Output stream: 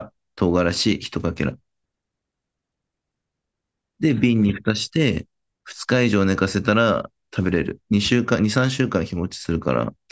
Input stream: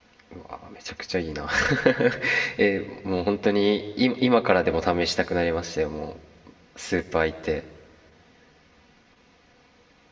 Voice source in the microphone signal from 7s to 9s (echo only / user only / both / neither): user only